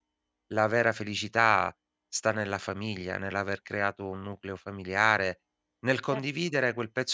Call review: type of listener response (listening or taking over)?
listening